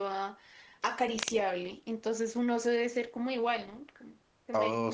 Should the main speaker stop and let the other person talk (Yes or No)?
Yes